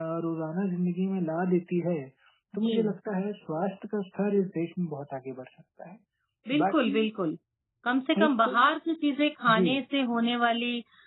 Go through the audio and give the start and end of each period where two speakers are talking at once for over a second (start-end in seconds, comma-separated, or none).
none